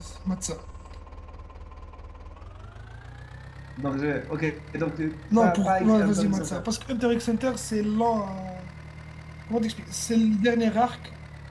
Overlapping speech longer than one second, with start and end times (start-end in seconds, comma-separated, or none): 5.4-6.6